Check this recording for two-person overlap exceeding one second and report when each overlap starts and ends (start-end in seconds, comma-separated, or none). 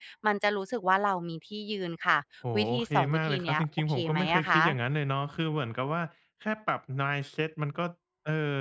2.5-4.6